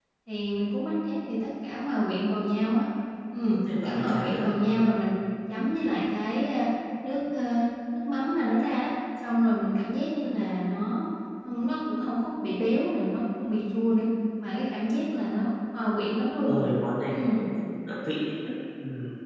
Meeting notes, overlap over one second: present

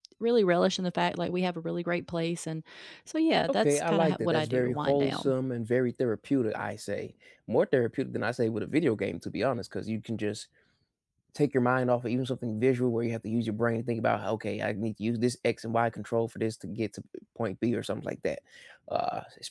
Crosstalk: present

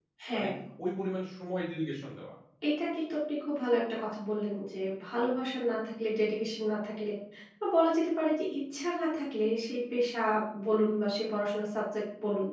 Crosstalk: none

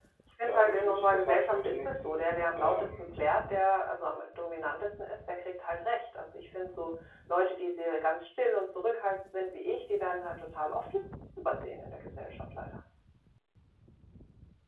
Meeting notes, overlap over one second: present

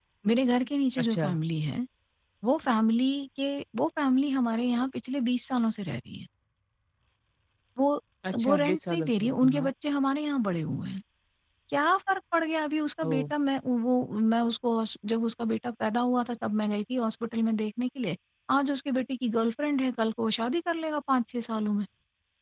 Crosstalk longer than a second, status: present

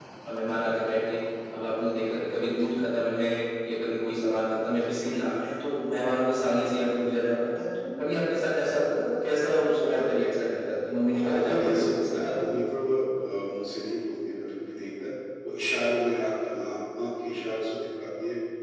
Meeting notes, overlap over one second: present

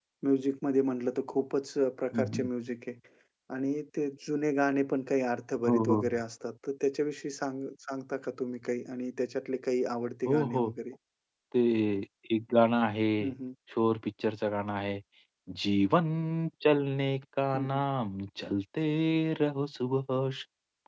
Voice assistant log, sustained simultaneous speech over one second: none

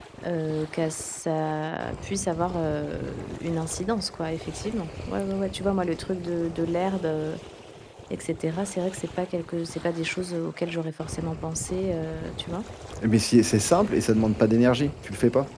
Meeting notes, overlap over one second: none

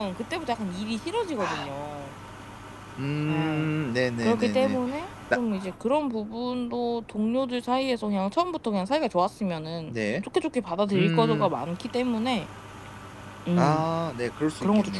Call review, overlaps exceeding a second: none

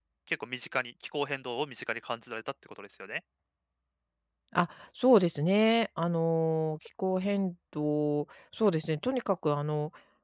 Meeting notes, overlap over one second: none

